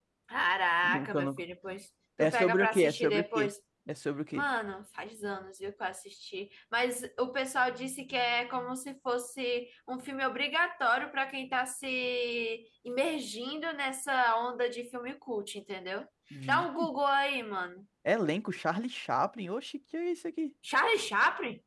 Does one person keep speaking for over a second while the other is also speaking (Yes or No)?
Yes